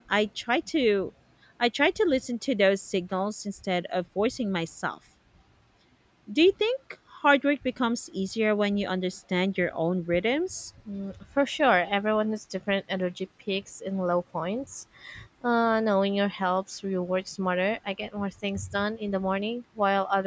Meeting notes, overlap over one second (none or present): none